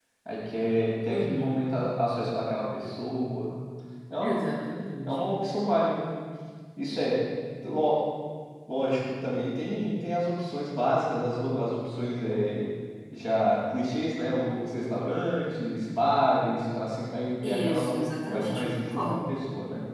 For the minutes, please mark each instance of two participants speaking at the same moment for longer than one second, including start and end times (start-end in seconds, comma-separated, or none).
17.4-19.3